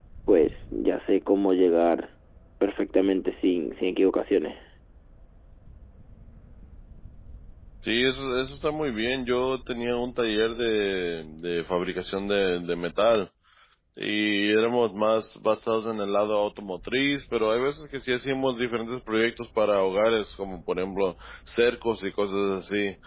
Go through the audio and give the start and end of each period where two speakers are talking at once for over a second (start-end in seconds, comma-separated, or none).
none